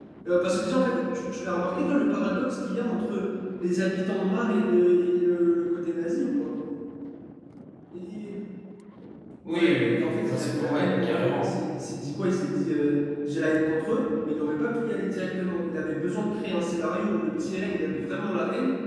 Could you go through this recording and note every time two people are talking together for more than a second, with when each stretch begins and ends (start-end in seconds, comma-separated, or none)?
9.5-11.5